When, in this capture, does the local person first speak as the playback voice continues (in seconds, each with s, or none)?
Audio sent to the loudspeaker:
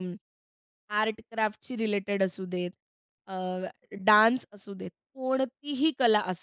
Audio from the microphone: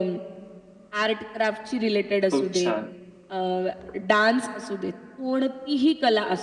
2.2 s